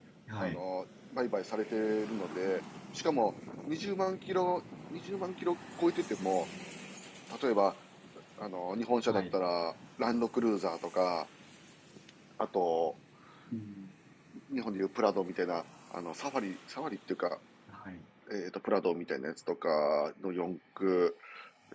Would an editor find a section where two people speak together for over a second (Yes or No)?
No